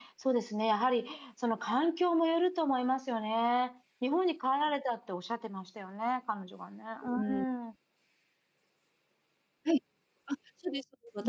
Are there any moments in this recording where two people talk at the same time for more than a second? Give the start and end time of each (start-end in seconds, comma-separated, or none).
none